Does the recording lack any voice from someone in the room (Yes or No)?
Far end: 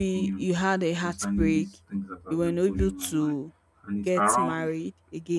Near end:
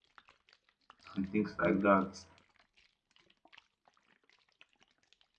No